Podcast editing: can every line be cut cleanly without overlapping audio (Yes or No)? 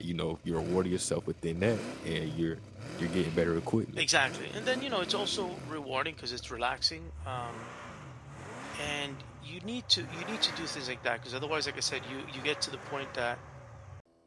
Yes